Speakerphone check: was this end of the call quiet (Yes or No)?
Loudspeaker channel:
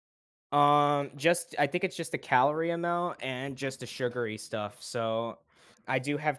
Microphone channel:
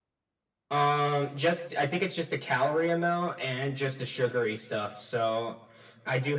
Yes